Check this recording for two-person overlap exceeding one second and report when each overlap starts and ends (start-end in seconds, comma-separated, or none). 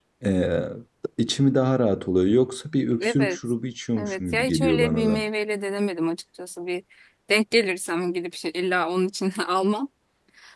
4.0-5.2